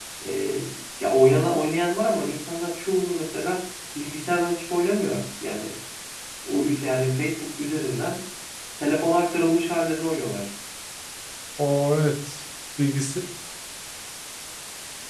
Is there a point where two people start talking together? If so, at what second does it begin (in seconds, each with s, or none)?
none